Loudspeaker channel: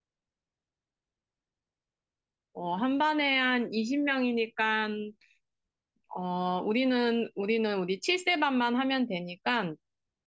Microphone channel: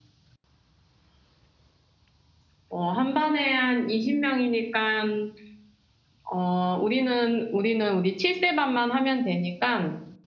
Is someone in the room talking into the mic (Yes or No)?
No